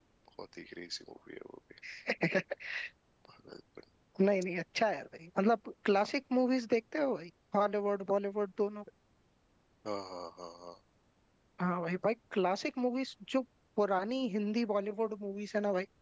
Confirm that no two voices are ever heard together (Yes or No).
Yes